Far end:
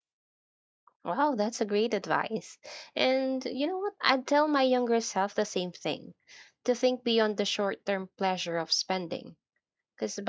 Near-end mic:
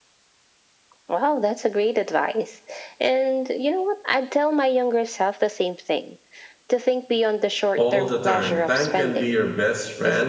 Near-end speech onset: 7.7 s

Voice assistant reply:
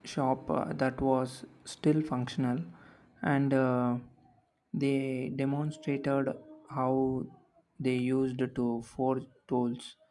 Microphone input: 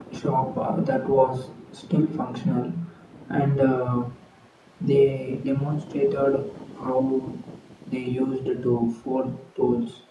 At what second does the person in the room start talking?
none

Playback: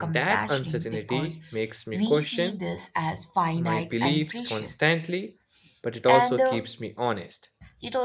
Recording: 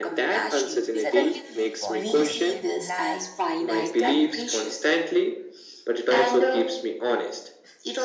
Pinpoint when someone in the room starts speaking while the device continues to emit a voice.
1.0 s

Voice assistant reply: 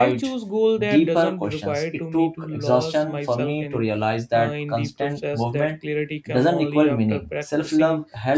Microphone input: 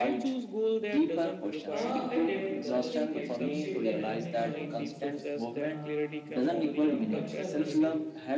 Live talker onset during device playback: 1.7 s

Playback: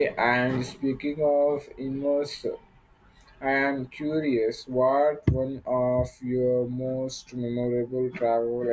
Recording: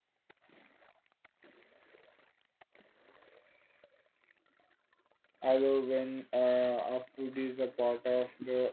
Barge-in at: 5.4 s

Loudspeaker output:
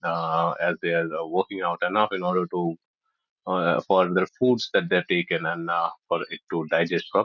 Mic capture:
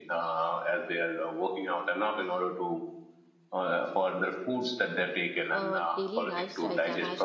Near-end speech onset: 5.5 s

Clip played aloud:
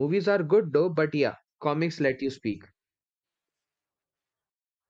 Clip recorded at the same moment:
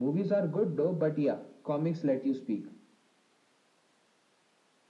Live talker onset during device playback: none

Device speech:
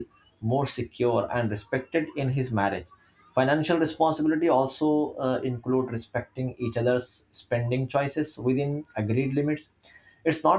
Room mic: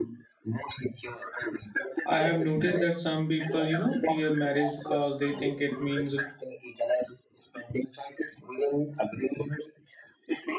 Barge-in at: 2.0 s

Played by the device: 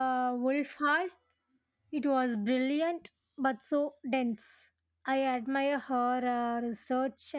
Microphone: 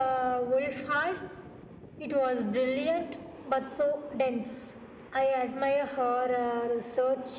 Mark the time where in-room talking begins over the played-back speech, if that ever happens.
none

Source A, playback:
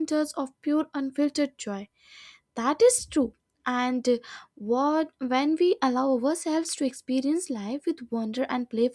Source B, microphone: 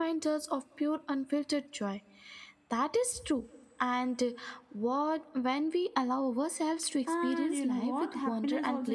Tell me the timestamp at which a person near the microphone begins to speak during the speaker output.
7.1 s

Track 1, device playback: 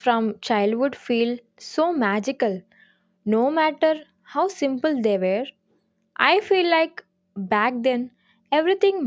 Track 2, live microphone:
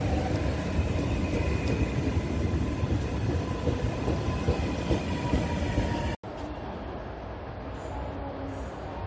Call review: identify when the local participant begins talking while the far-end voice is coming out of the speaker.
none

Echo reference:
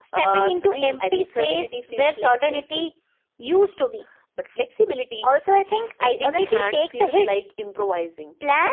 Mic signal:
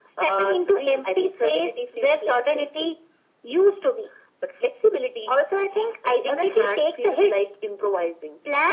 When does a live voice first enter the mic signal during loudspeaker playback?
none

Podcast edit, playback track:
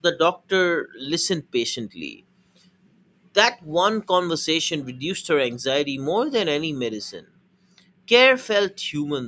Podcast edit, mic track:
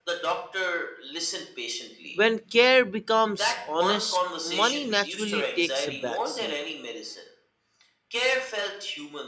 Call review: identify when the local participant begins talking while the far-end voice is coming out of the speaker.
2.1 s

